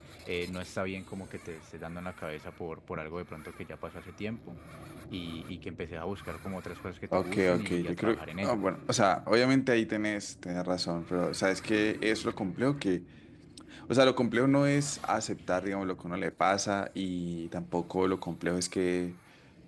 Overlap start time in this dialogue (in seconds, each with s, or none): 7.1 s